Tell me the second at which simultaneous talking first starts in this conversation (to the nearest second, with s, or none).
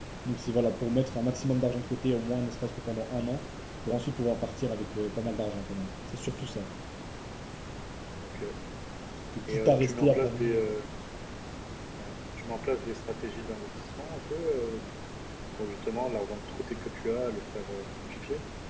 9 s